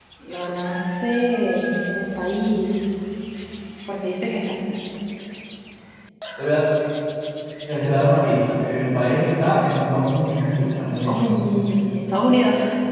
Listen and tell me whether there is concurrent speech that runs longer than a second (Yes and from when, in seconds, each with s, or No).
No